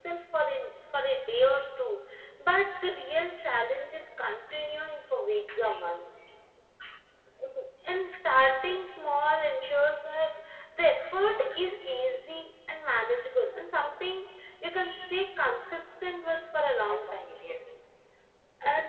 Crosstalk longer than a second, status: none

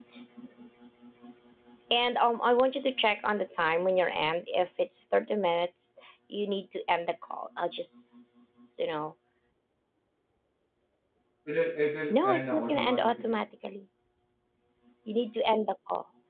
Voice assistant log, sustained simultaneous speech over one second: present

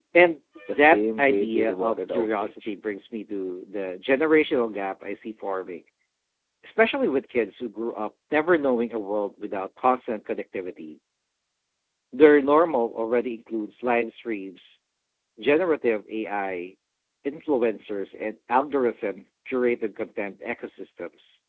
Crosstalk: present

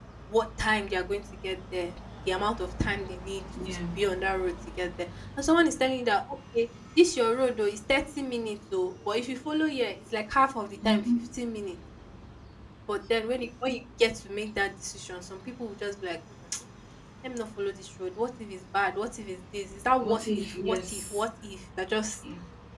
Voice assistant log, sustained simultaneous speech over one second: present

